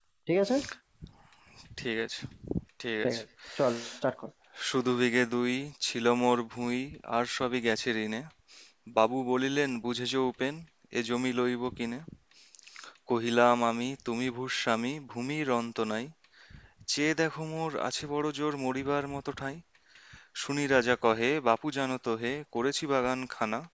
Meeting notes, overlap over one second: none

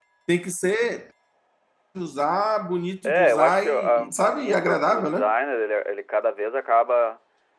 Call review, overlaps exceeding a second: present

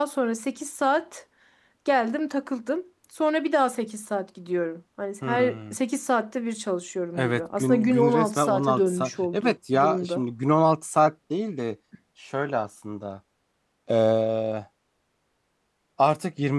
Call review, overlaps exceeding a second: present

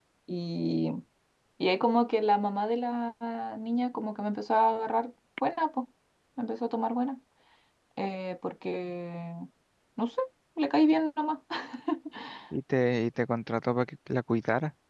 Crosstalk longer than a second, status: none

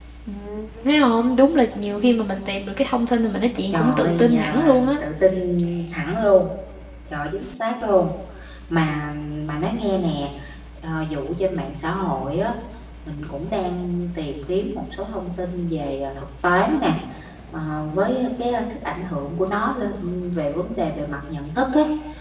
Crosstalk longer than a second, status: present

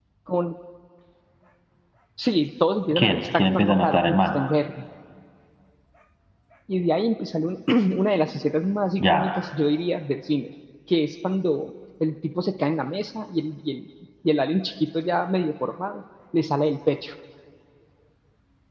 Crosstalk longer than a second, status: present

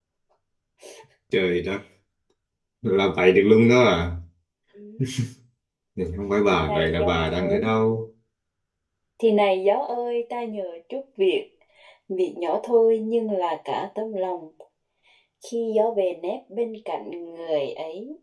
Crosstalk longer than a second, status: present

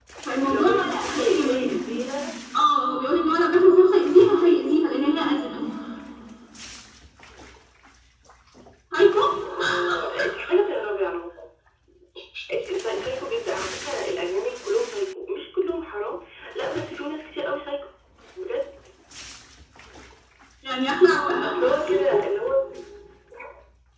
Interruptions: present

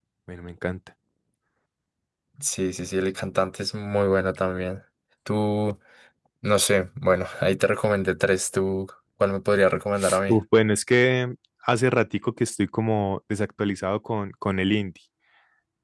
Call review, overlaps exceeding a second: none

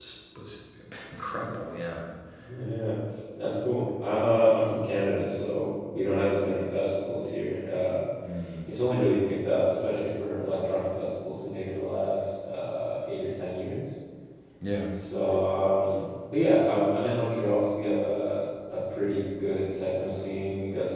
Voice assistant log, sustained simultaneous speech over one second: none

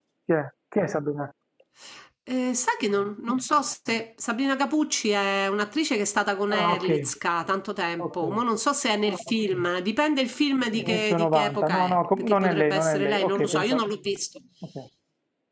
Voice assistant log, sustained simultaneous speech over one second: present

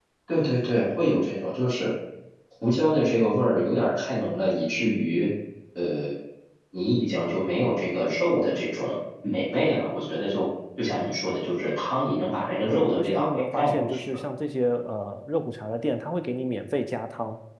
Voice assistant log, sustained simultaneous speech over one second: present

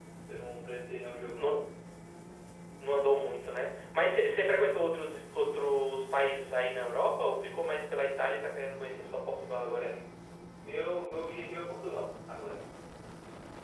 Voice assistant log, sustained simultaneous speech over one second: none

